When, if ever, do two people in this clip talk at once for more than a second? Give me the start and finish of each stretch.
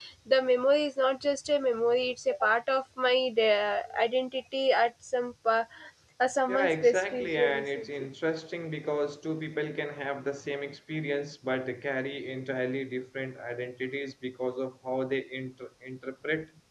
6.5-7.9

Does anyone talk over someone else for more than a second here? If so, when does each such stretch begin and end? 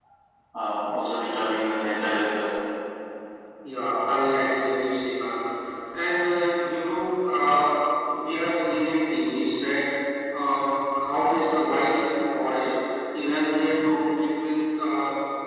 none

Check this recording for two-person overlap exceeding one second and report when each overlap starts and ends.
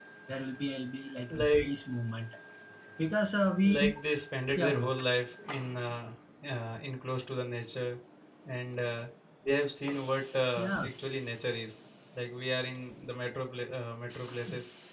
none

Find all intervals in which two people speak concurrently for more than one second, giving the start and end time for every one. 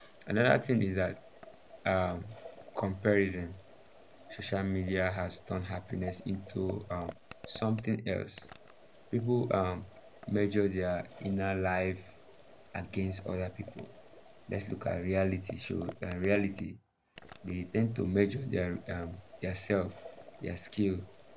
none

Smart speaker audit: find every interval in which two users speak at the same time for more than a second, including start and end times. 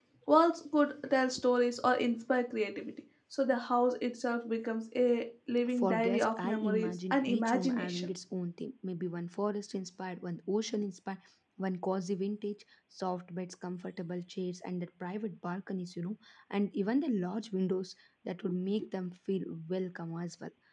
5.8-8.1

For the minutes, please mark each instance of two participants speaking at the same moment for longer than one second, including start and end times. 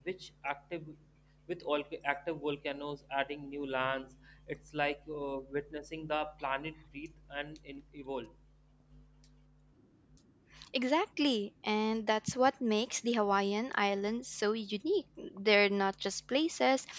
none

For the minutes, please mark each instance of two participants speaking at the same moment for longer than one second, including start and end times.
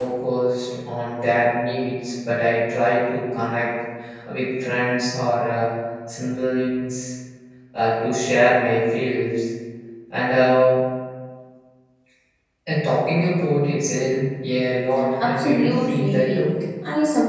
15.2-16.5

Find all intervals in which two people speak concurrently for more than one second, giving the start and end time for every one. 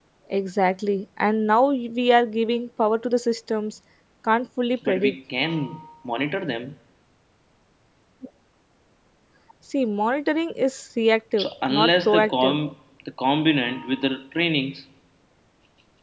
11.4-12.6

